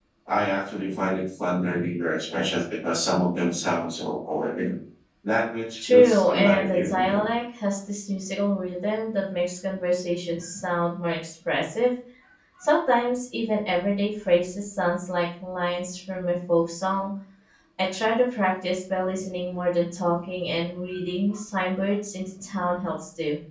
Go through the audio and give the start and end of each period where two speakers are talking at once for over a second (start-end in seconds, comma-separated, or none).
5.8-7.2